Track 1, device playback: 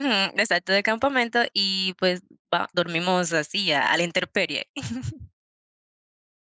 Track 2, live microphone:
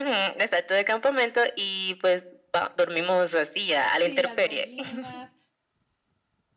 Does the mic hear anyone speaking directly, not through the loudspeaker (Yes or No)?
Yes